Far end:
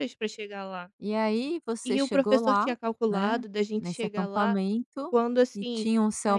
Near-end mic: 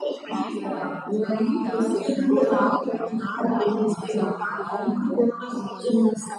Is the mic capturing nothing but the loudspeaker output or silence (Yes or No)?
No